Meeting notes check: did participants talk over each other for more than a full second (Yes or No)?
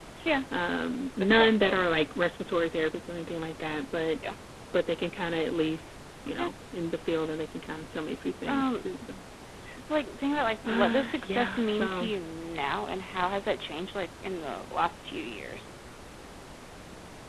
Yes